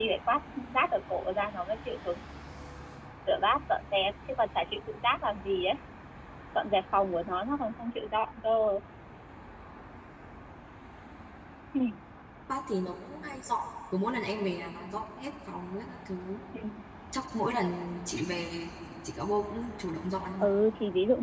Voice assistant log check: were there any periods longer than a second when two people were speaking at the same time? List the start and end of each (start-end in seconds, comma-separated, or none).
none